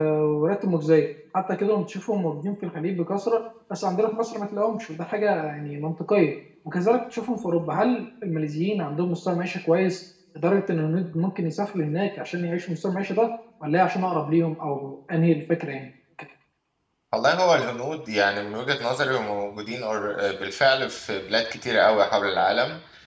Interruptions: none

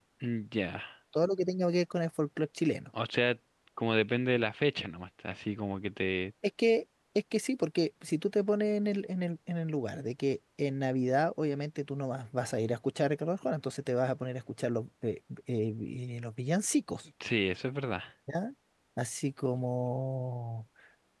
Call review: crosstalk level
none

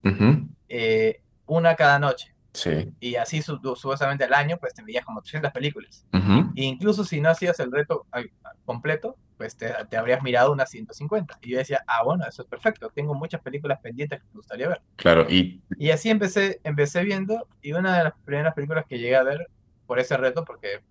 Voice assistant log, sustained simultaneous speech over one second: none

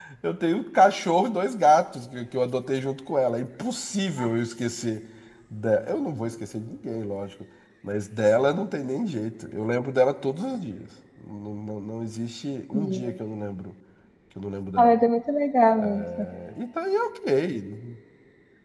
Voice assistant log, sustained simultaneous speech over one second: none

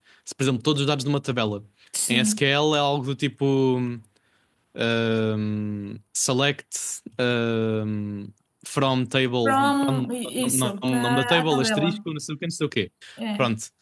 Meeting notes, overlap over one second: present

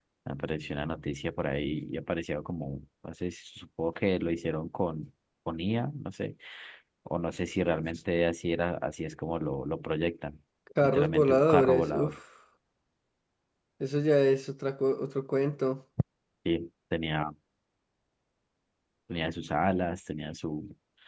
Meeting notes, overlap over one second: present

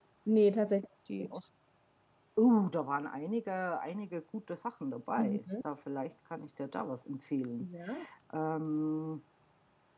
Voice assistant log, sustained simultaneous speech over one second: none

